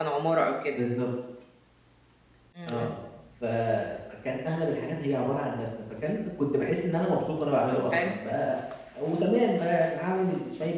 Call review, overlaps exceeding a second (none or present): none